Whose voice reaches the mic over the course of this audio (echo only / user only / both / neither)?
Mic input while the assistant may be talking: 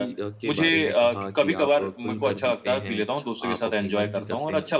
both